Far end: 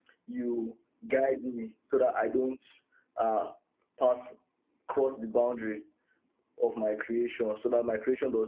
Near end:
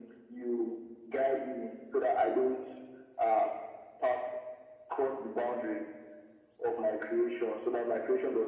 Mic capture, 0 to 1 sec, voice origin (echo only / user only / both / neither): echo only